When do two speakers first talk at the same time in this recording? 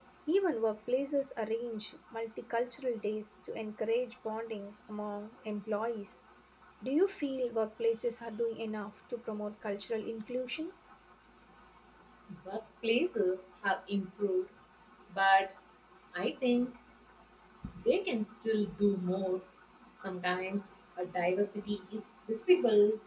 none

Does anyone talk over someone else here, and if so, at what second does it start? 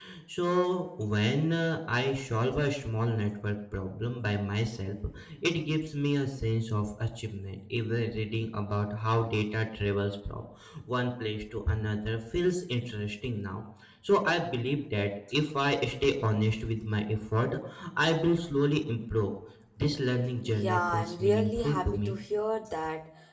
20.4 s

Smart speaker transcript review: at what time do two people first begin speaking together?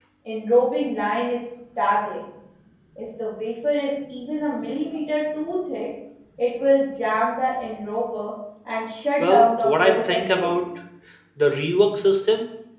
9.2 s

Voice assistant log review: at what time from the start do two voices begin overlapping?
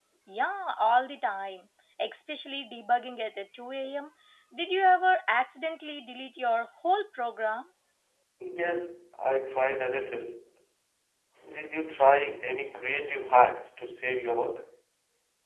none

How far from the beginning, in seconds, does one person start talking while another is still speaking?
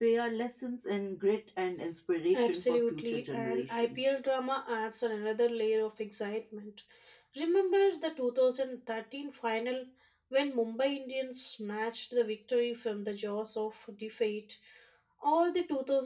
2.3 s

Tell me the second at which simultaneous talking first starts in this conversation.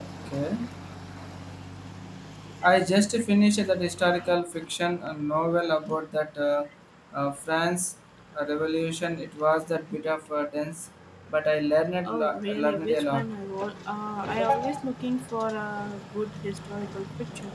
12.0 s

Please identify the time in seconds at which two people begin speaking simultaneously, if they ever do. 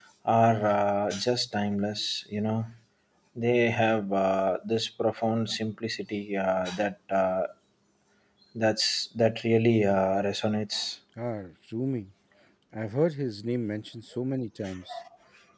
none

